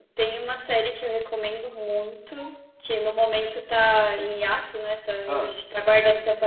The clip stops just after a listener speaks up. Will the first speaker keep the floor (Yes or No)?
Yes